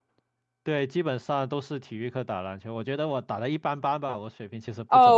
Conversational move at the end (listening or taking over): taking over